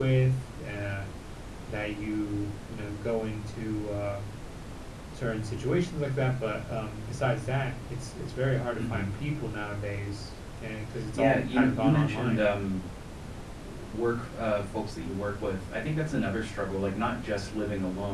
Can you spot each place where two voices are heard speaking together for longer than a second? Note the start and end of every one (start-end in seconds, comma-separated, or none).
11.1-12.4